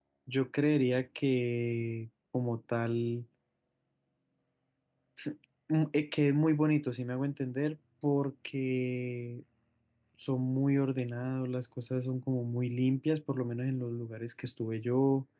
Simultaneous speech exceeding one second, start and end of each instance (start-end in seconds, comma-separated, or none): none